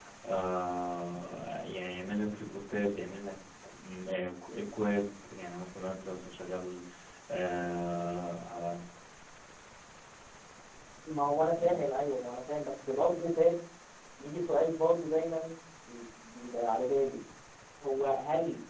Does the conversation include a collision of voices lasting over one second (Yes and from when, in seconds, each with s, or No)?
No